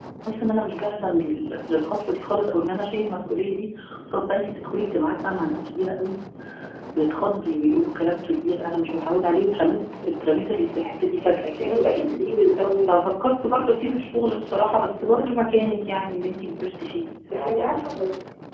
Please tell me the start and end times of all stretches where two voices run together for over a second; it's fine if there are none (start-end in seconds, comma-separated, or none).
none